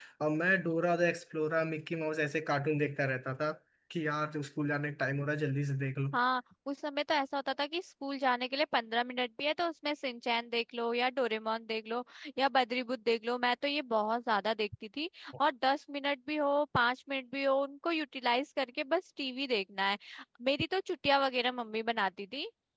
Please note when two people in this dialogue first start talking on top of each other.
none

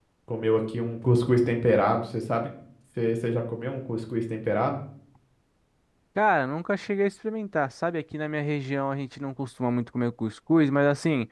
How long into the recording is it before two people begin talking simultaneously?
none

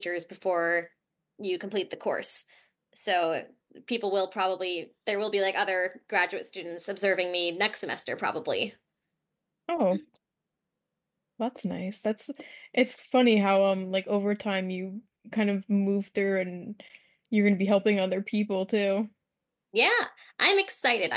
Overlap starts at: none

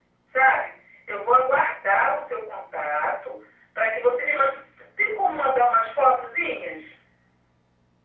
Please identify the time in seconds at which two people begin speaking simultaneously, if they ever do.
none

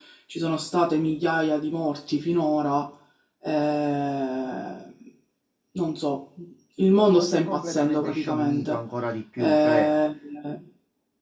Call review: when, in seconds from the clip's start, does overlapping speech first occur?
7.0 s

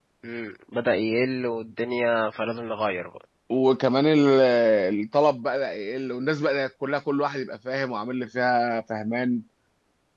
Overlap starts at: none

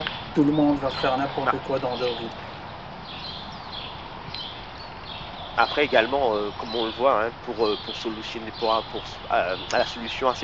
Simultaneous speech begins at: none

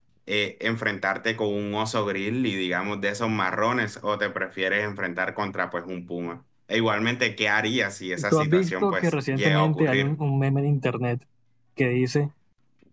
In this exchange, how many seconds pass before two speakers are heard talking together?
8.2 s

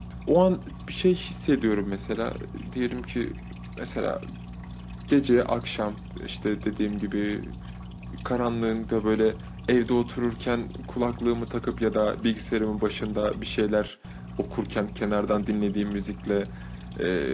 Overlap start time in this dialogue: none

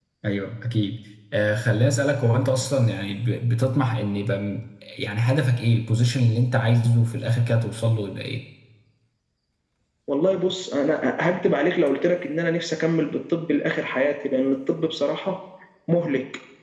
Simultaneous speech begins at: none

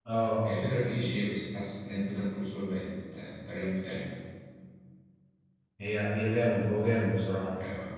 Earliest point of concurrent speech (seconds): none

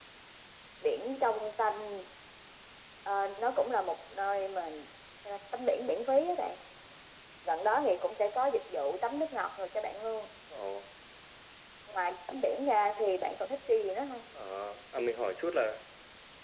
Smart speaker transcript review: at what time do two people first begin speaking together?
none

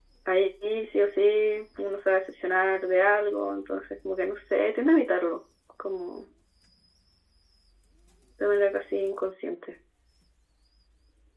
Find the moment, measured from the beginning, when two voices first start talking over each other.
none

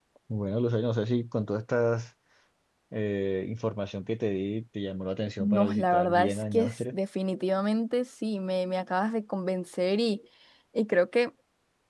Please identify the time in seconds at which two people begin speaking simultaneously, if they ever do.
5.4 s

